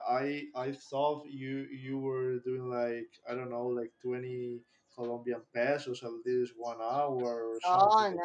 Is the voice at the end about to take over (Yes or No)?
Yes